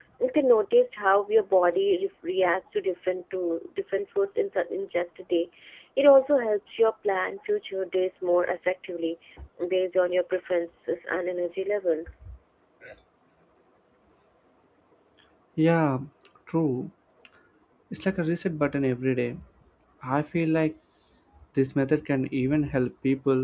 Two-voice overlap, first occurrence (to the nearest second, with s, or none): none